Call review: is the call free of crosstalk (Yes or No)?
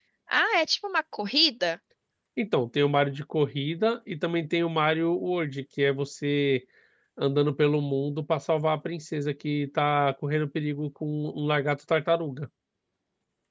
Yes